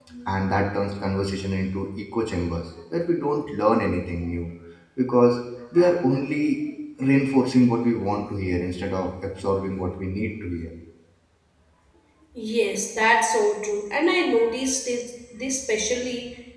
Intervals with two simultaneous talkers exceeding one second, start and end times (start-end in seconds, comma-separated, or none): none